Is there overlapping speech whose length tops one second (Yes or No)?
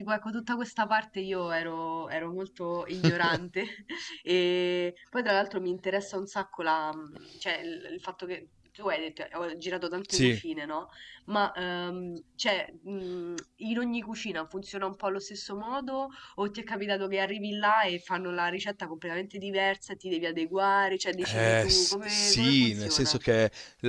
Yes